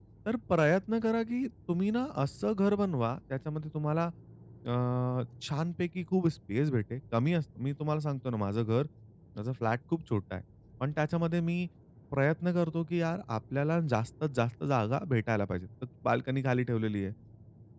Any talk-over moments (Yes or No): No